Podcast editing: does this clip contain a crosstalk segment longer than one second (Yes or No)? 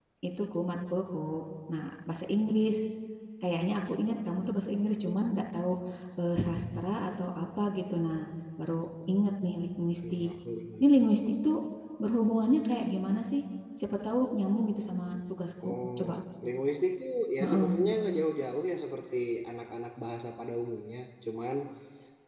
No